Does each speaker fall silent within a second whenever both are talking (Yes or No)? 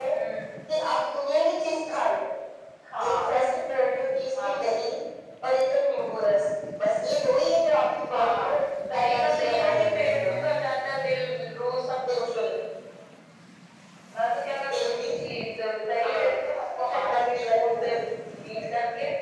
No